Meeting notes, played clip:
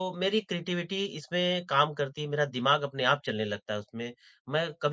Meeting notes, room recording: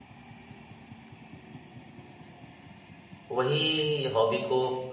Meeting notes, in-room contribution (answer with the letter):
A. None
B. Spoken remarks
B